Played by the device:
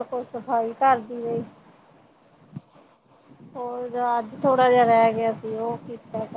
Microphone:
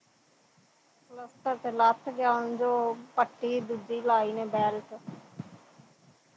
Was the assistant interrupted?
Yes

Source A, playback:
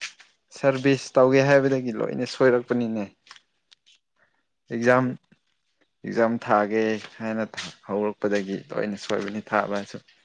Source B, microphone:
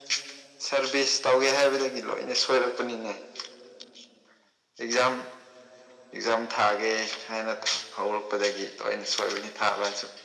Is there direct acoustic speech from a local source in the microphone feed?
No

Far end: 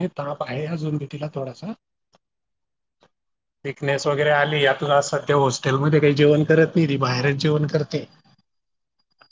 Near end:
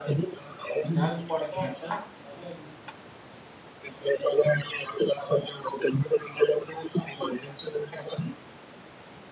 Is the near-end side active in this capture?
Yes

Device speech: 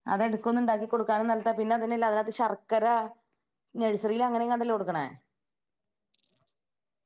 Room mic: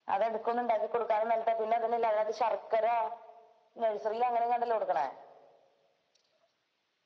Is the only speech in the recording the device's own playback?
Yes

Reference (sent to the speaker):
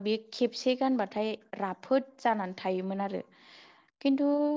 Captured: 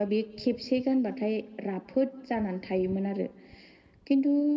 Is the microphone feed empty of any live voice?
Yes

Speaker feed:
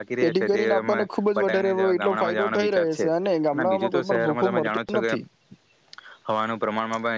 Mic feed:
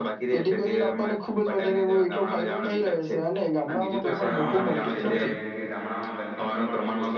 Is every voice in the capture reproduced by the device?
No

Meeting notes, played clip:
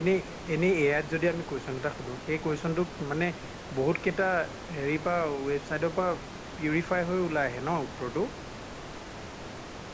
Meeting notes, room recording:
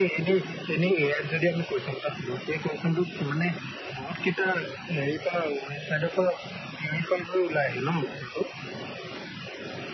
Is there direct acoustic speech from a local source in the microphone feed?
No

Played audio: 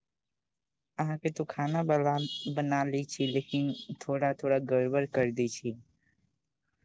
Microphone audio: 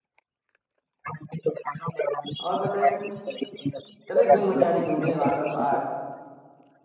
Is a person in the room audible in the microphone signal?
Yes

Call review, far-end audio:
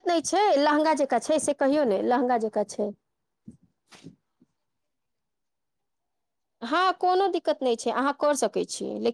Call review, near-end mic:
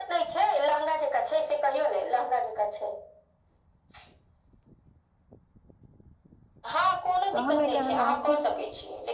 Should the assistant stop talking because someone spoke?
Yes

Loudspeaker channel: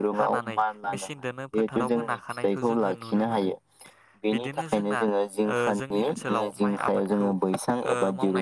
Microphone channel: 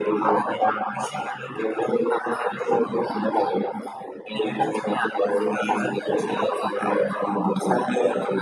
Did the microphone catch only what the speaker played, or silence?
Yes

